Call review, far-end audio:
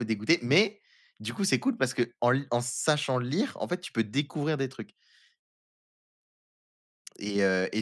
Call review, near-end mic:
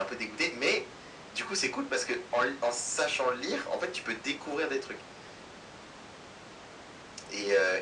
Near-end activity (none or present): none